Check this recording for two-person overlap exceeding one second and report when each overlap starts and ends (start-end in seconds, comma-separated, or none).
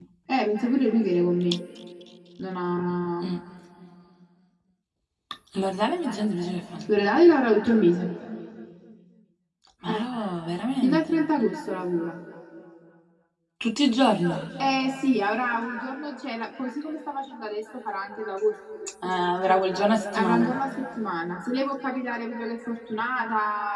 none